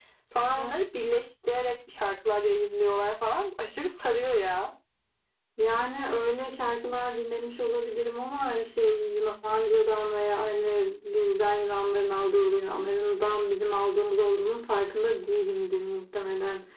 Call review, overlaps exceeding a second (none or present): none